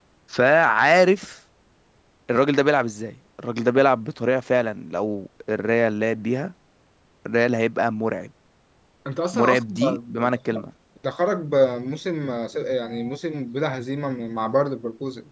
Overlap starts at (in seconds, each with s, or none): 9.3 s